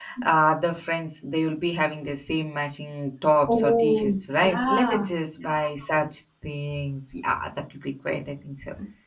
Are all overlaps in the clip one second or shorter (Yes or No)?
No